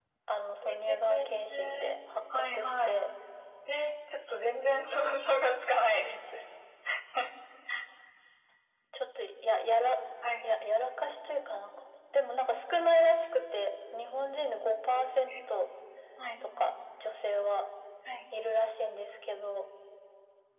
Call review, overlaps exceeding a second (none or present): present